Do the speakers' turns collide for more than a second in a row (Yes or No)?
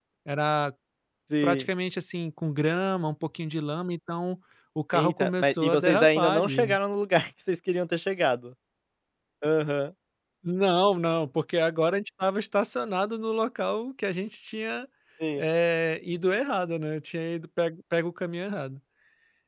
Yes